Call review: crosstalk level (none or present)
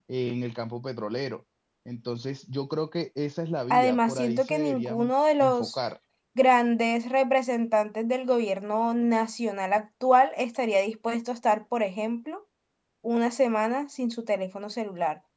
present